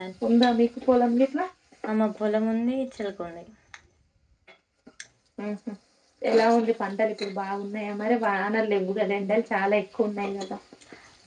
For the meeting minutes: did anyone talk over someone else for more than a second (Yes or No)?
No